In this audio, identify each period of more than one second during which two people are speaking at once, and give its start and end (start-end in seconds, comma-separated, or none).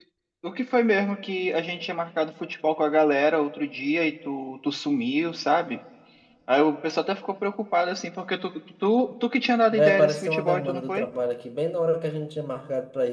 9.7-11.1